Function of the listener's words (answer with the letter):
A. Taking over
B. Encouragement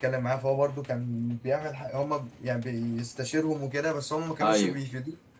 B